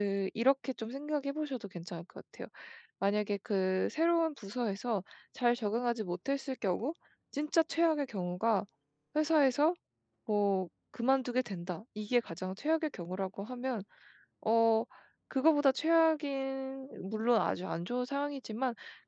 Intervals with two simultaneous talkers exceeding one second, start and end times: none

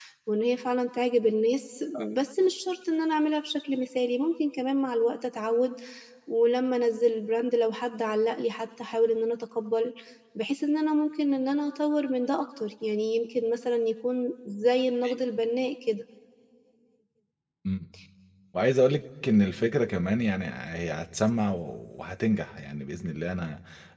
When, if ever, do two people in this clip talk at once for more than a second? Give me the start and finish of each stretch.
none

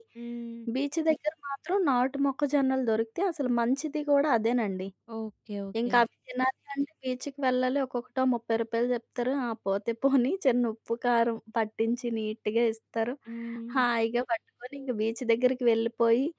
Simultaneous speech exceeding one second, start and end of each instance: none

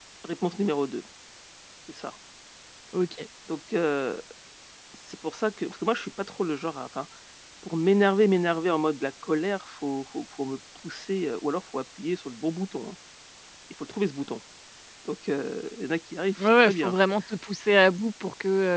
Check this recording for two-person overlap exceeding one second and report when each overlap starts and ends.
none

